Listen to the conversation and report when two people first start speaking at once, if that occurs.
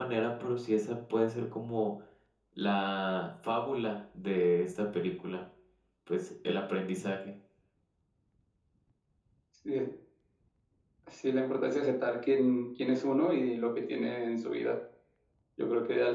none

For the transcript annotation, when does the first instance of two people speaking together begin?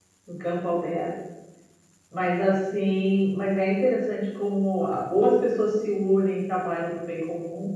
none

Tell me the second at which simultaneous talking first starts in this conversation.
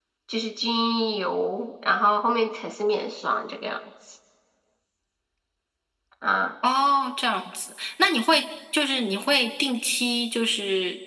none

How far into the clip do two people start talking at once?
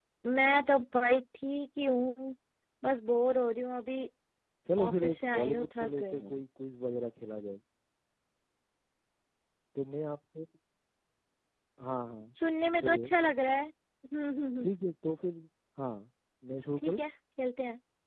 5 s

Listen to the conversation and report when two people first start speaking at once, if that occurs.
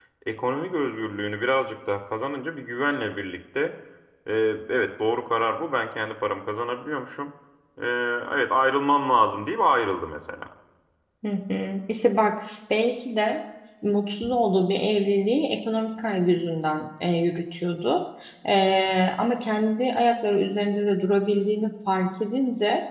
none

